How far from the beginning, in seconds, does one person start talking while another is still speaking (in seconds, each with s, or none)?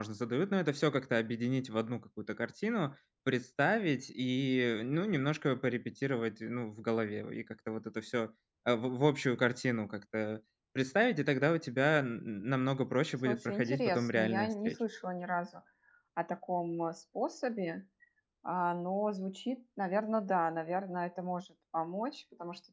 13.2 s